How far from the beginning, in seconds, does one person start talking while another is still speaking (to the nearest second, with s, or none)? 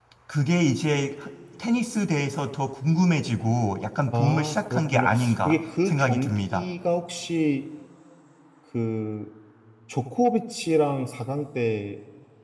4 s